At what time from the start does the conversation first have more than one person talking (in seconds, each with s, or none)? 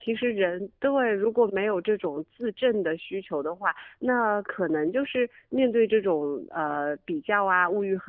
none